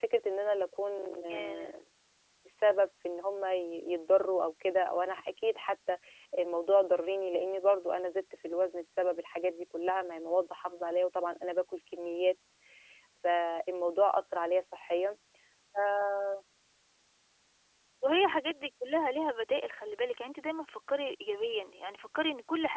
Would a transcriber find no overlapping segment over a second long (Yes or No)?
Yes